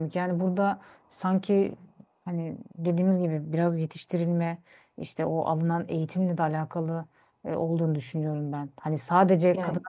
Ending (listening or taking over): listening